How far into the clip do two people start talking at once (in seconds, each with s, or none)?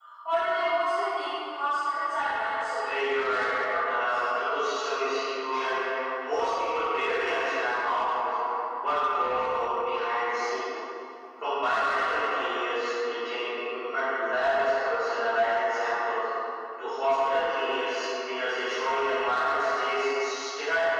2.8 s